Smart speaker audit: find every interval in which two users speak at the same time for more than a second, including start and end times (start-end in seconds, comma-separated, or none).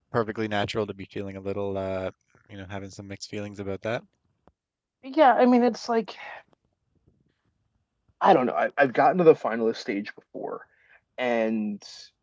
none